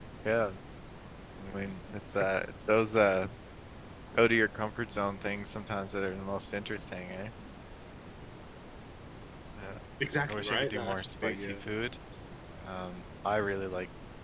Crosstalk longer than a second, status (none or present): present